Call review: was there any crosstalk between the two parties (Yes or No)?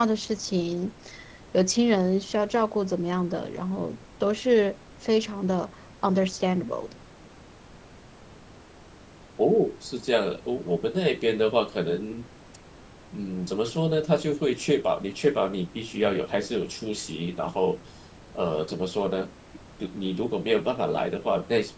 No